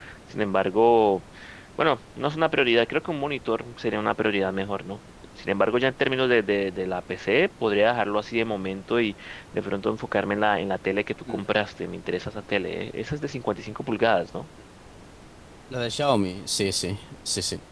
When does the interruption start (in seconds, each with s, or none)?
none